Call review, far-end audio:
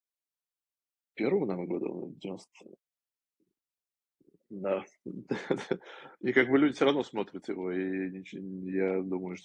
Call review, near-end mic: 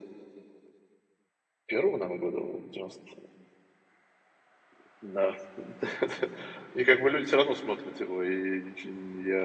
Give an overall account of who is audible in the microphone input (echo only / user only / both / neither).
echo only